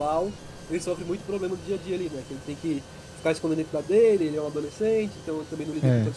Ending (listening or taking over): listening